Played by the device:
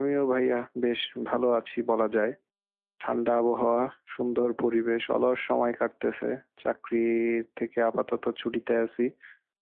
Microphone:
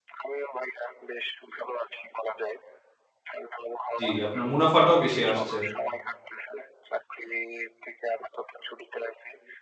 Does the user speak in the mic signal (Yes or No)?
Yes